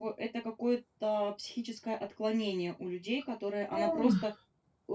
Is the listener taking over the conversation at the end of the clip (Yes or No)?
No